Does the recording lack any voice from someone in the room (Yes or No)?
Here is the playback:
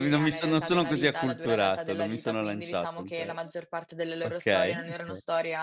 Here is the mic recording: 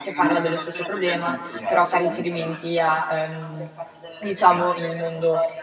No